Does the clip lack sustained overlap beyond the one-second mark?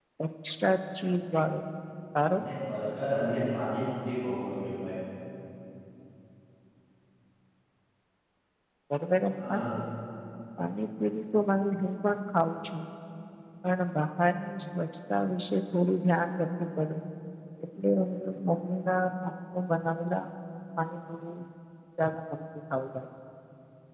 Yes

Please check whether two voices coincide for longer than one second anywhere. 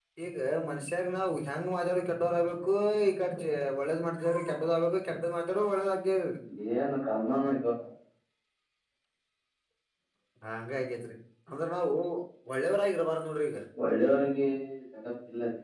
No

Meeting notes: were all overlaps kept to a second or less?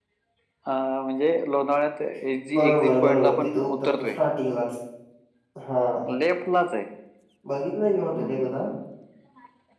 No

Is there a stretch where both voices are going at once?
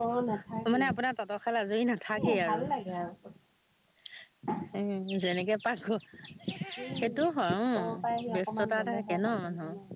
Yes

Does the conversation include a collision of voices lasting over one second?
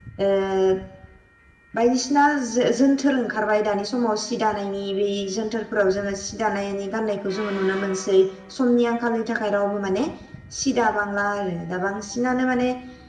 No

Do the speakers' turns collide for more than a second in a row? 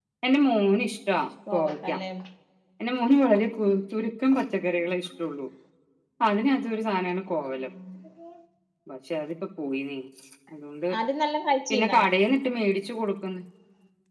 No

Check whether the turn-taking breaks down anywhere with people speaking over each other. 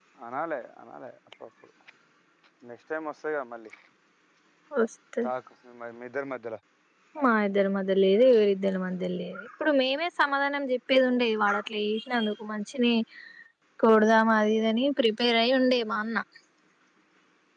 No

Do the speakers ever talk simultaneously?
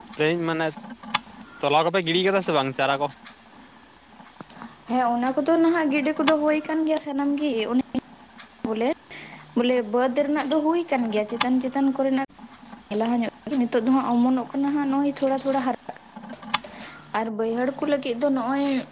No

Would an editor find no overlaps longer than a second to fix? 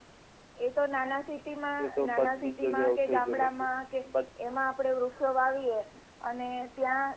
No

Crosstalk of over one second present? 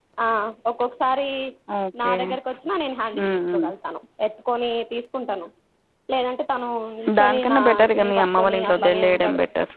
Yes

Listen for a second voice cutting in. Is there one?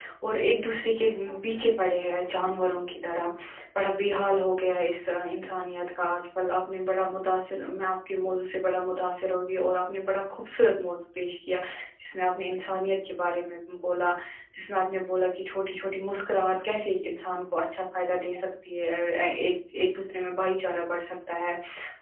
No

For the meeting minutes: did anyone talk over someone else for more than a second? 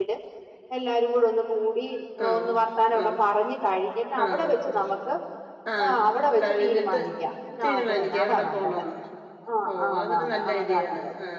Yes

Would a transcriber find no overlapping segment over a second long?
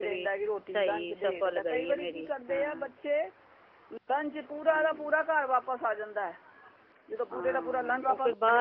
No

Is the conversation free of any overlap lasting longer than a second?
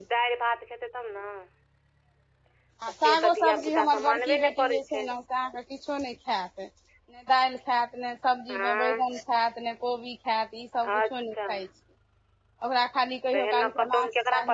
No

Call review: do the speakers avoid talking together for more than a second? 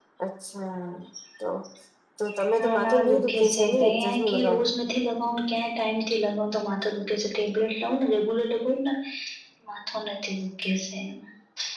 No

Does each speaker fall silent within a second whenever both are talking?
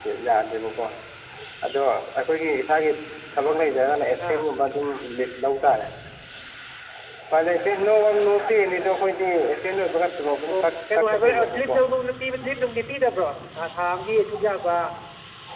No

